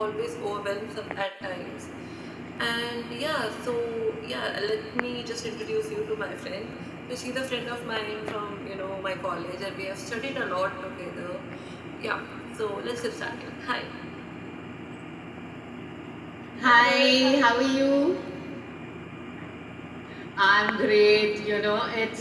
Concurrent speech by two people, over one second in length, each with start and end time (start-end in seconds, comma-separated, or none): 16.7-17.9